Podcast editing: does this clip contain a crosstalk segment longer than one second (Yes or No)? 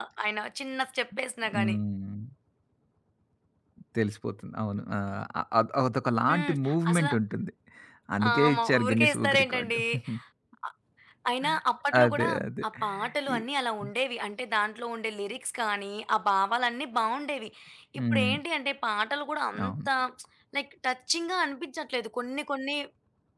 Yes